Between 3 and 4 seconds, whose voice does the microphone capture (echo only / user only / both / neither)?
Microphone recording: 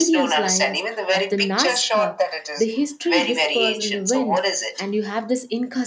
both